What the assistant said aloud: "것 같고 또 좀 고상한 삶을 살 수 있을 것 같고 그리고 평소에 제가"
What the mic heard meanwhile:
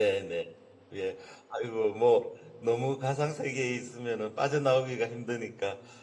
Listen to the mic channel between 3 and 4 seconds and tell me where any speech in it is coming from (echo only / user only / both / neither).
user only